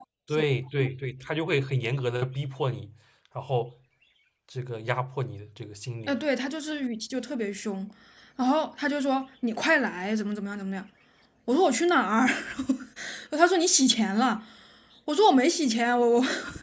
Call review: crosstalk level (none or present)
none